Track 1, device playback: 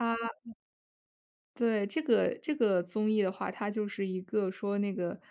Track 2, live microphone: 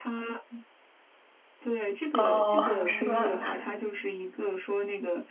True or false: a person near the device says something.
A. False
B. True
B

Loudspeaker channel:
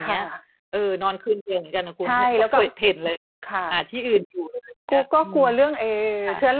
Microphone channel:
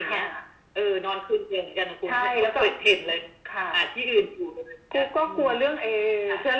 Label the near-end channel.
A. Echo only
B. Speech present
A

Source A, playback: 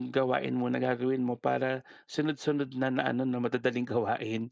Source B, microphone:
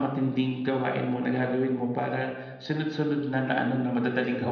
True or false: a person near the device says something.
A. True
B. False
B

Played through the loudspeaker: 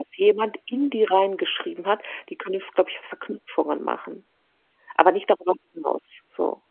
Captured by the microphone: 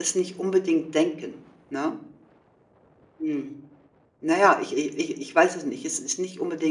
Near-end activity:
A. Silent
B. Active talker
B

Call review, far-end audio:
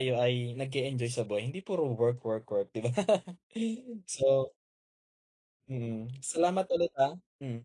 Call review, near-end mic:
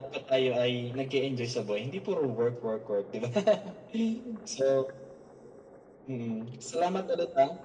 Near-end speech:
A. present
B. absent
B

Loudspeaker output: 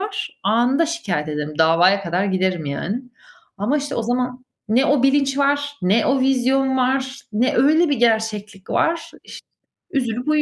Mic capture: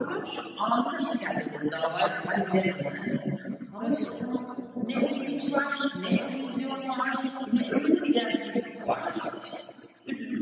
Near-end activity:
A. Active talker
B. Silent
A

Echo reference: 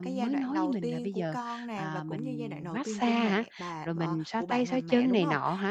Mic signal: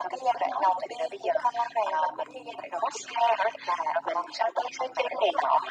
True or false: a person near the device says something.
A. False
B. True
A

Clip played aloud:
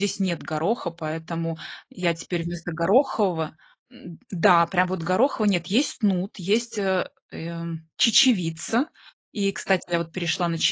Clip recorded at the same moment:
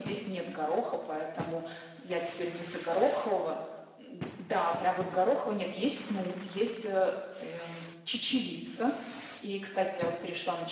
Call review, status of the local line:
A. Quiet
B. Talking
A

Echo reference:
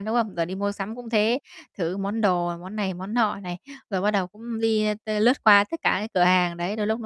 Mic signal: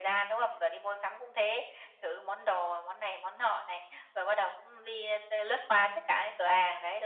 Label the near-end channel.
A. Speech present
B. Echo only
B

